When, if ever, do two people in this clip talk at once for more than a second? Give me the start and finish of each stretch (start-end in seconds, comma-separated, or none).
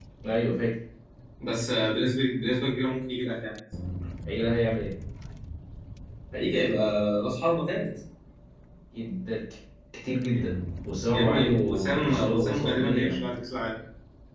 11.1-13.3